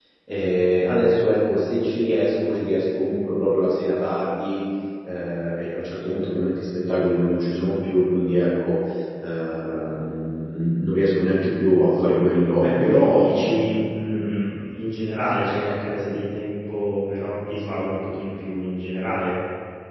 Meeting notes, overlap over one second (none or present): present